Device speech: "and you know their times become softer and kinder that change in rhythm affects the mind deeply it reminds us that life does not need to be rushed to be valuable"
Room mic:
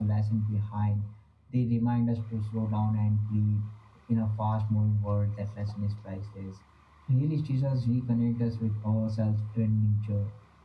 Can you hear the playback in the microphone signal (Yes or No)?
No